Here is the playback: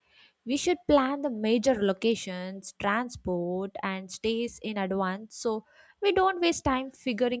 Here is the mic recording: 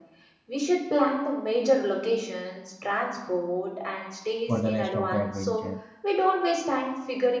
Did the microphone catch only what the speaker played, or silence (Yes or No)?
No